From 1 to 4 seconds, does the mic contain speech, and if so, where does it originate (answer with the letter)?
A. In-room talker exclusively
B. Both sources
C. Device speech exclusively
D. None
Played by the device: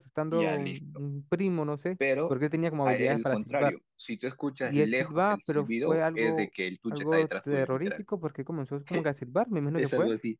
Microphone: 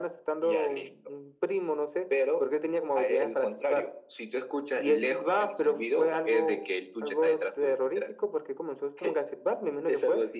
C